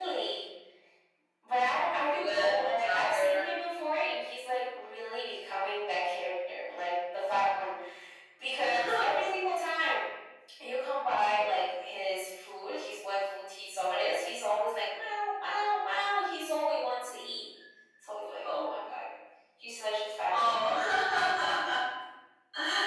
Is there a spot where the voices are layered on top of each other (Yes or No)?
Yes